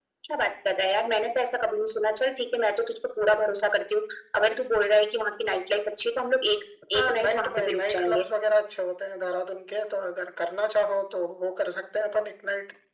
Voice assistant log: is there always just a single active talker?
No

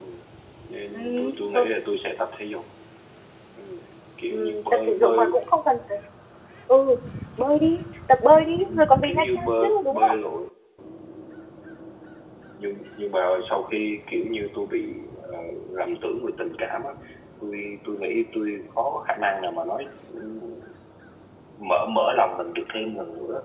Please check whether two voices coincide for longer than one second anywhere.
Yes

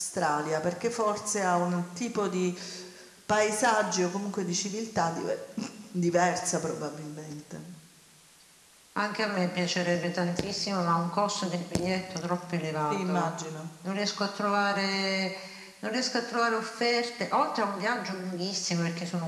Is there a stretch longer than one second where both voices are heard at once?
No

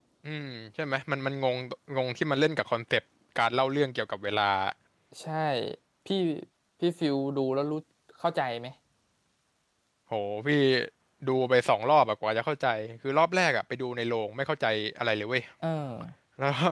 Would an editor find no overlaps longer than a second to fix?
Yes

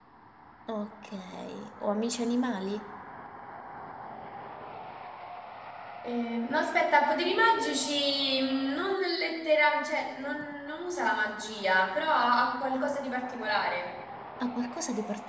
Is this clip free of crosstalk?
Yes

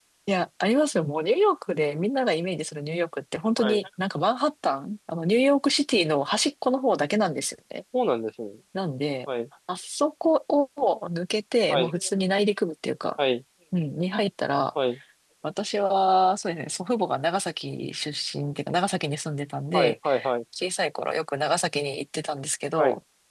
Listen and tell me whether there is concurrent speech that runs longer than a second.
No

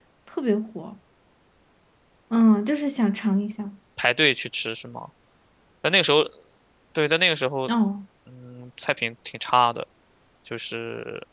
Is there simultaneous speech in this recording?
No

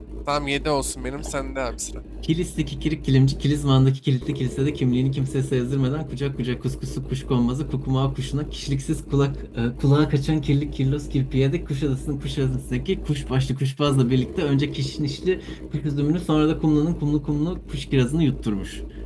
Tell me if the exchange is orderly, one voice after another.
Yes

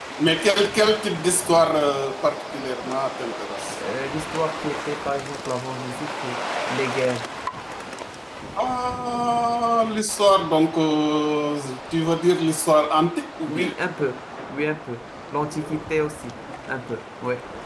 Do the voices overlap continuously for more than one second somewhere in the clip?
No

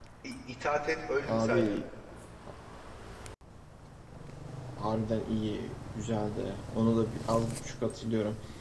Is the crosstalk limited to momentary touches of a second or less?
Yes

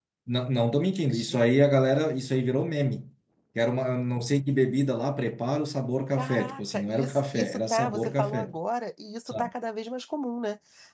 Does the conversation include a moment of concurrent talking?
Yes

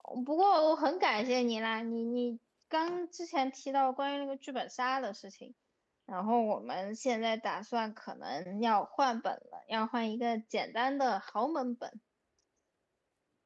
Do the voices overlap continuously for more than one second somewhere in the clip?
No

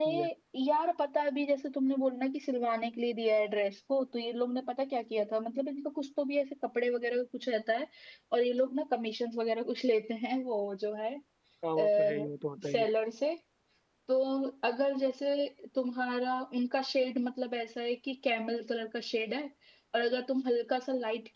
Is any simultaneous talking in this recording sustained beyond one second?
No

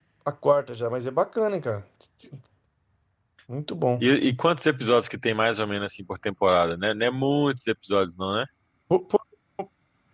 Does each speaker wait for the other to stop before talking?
Yes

